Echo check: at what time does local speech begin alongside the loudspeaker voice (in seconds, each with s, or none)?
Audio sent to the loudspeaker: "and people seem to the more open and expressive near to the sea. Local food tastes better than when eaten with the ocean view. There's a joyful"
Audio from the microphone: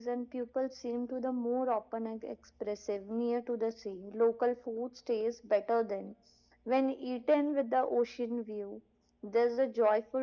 none